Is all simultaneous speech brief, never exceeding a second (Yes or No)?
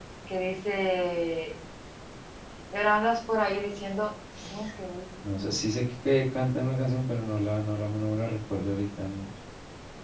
Yes